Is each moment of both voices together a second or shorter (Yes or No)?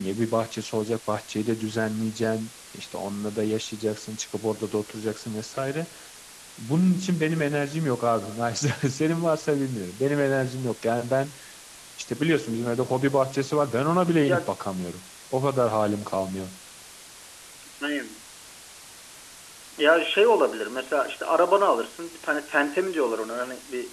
Yes